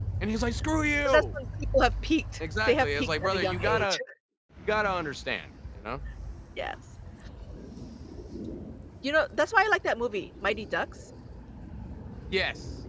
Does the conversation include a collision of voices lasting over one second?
Yes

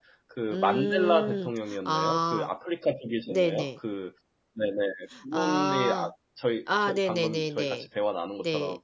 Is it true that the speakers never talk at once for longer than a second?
No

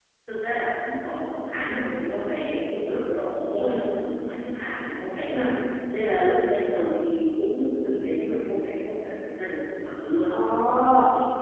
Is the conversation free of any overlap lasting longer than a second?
Yes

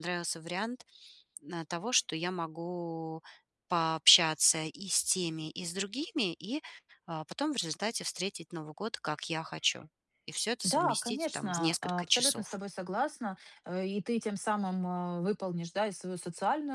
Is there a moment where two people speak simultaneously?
Yes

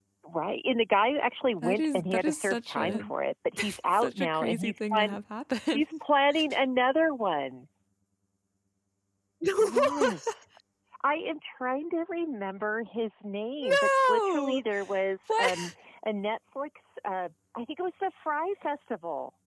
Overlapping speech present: Yes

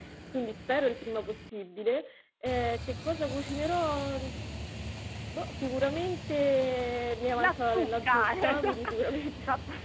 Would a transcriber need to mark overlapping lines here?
Yes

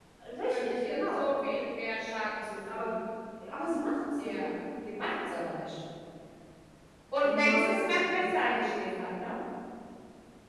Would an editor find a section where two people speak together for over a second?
Yes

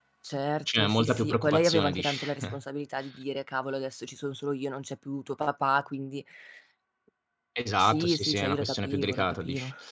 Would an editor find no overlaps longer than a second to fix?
No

